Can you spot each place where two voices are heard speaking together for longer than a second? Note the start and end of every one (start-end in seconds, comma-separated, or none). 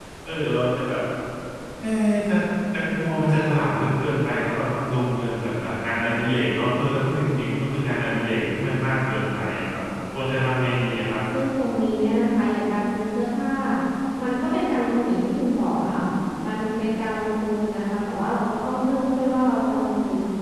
none